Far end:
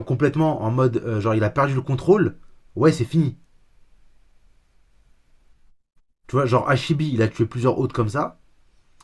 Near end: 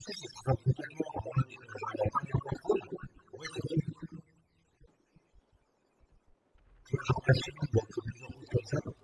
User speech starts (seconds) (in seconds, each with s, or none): none